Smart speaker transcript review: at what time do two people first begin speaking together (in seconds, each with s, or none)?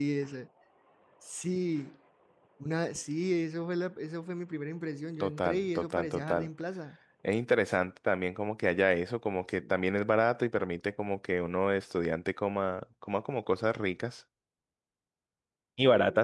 5.2 s